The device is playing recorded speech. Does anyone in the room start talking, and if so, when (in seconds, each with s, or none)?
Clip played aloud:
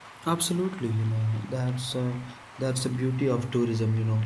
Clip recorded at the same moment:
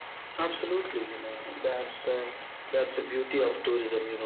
none